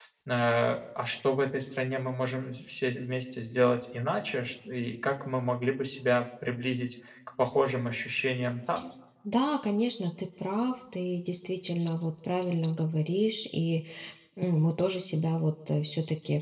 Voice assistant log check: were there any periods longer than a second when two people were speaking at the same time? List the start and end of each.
none

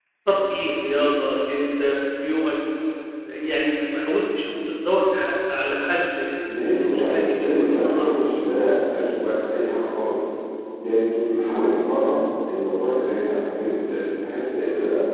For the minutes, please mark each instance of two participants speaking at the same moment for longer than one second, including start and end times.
6.6-8.3

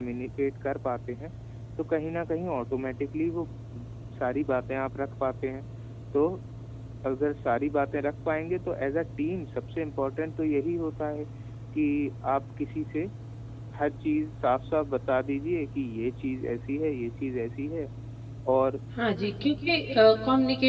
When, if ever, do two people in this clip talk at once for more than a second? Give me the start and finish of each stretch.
none

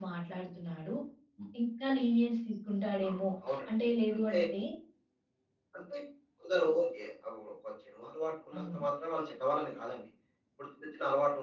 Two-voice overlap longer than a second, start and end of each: none

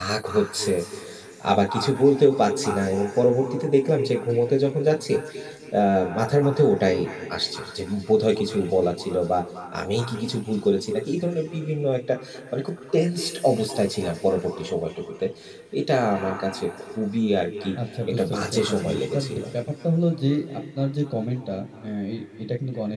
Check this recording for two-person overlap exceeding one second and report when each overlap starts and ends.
18.1-19.4

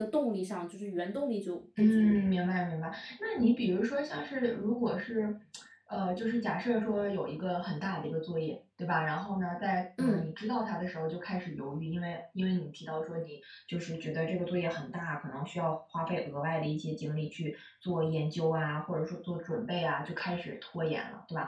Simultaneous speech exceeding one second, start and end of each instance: none

